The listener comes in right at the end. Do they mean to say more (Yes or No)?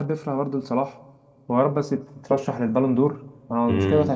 Yes